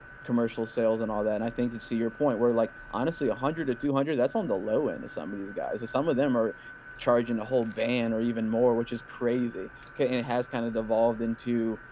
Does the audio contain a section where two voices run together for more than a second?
No

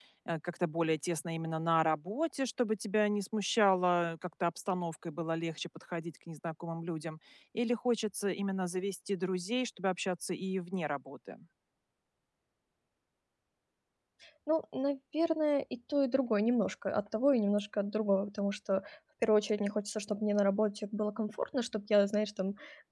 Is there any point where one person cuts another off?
No

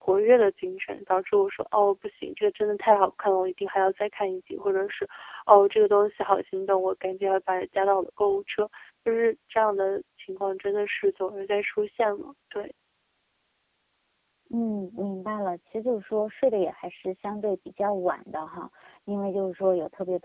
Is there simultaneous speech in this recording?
No

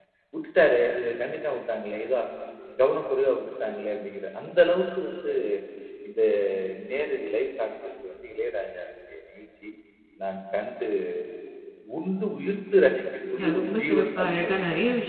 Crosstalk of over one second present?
Yes, from 13.4 s

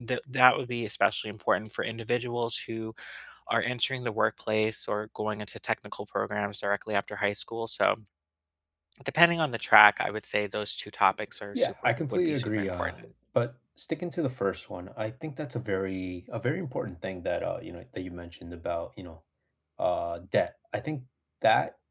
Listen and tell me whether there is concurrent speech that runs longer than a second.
Yes, from 11.5 s

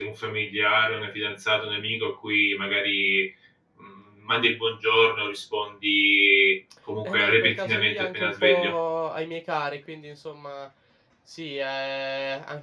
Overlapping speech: Yes, from 7.0 s

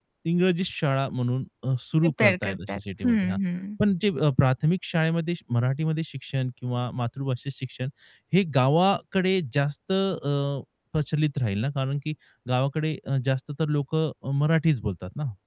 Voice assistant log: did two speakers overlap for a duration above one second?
Yes, from 2.0 s

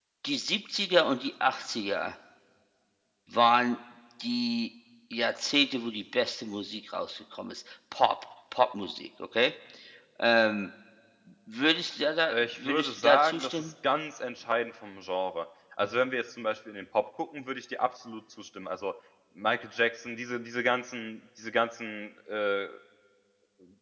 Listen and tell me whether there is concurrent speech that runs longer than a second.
Yes, from 12.3 s

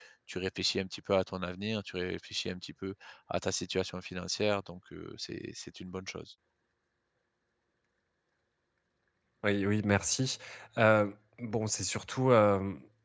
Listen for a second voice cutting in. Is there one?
No

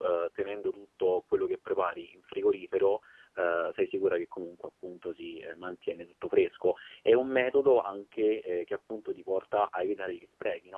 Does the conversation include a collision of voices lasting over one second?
No

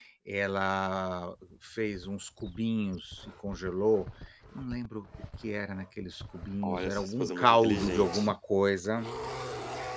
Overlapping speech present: Yes, from 6.6 s

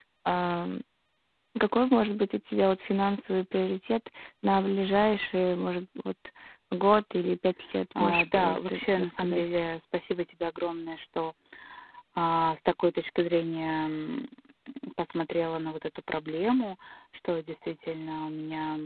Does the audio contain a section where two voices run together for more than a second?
Yes, from 8.0 s

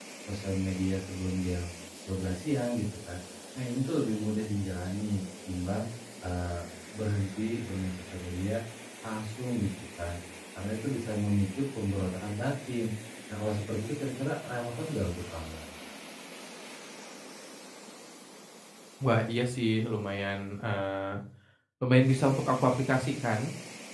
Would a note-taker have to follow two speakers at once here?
No

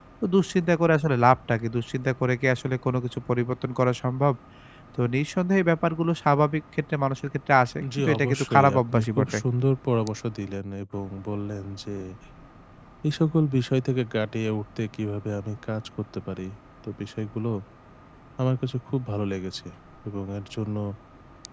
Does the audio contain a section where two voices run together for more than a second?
Yes, from 7.8 s

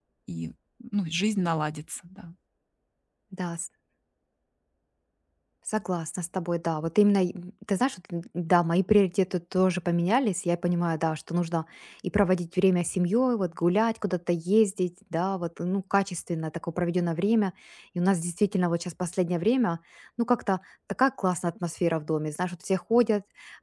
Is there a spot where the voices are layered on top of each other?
No

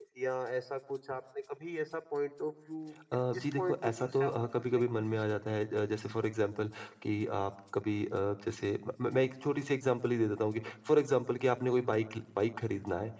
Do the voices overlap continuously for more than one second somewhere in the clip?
Yes, from 3.4 s

